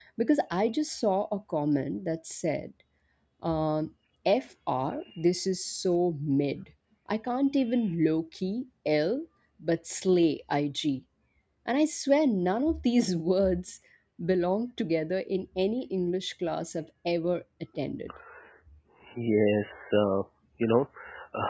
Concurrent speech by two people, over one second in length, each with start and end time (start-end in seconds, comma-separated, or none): none